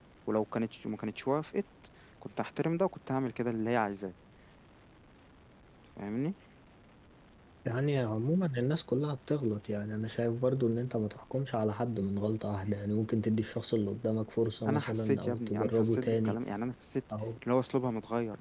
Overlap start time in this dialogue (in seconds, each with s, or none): 14.7 s